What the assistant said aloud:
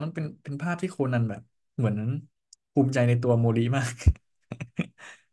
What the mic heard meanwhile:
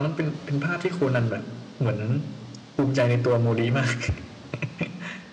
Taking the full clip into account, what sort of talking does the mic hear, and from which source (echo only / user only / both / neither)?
echo only